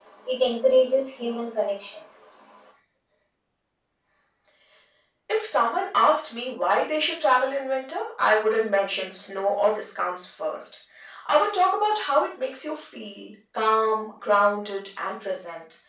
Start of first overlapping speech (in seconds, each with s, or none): none